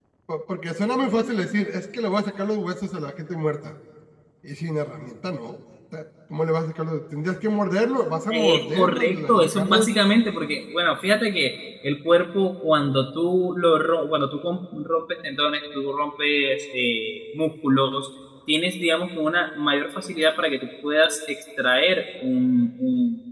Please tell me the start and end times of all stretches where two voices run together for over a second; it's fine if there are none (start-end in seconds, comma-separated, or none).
8.3-9.9